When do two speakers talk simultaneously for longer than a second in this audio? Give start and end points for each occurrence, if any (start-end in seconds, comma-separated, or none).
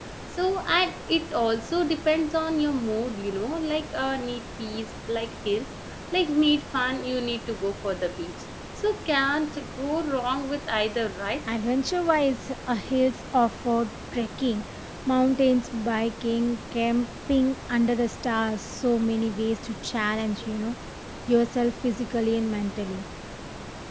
none